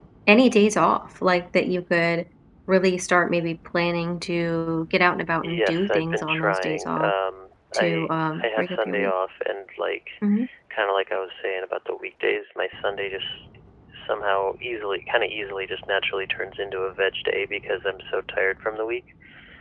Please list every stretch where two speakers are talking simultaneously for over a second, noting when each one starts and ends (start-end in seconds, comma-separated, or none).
5.4-7.1, 7.7-9.1